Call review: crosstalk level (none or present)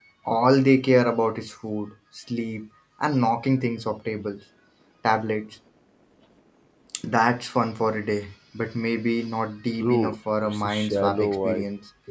present